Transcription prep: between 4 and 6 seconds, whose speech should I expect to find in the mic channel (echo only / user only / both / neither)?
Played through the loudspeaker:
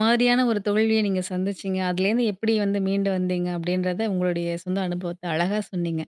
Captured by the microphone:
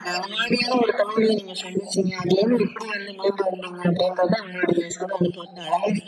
echo only